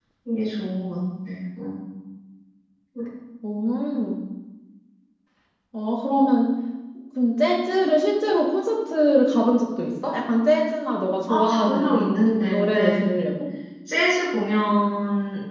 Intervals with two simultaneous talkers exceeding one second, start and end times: 11.3-13.0

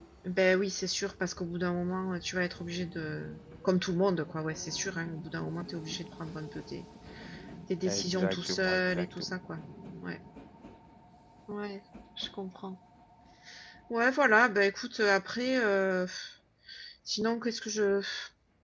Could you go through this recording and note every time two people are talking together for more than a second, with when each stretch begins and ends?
7.8-9.4

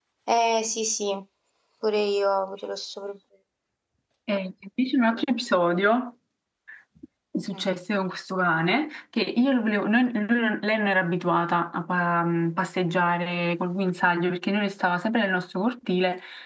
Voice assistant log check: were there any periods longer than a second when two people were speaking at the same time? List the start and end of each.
none

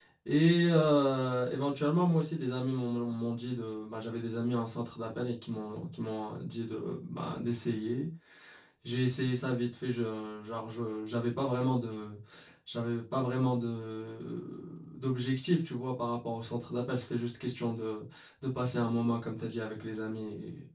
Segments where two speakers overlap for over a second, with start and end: none

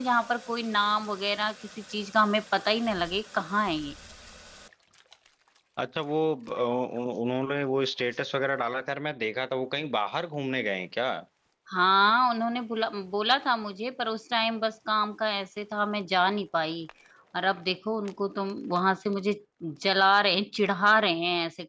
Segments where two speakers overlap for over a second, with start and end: none

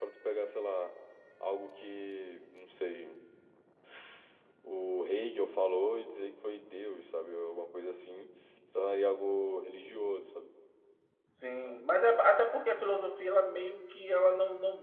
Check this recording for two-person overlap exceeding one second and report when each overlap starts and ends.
none

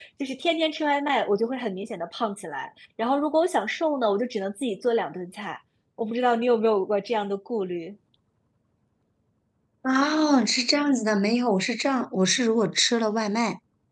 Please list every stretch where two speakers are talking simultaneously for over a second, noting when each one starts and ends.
none

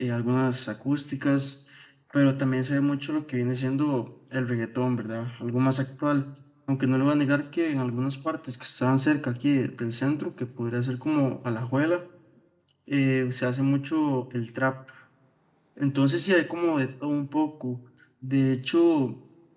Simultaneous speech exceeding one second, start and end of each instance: none

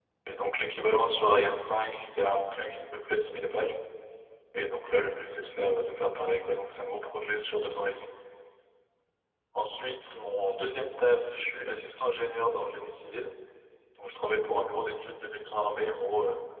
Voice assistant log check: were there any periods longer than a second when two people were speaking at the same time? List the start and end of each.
none

